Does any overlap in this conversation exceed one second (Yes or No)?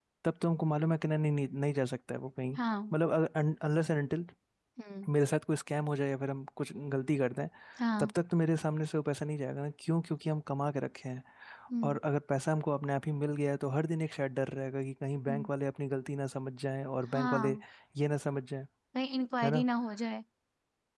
No